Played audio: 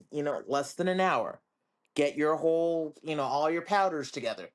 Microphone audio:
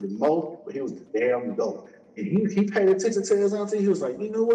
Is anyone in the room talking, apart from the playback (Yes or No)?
Yes